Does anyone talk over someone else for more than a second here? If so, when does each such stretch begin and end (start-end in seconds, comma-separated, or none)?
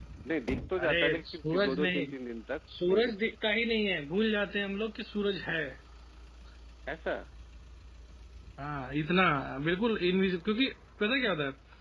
0.8-2.0